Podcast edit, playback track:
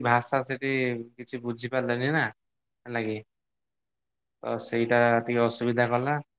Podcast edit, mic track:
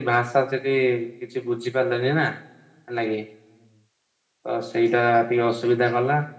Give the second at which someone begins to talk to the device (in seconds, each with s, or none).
none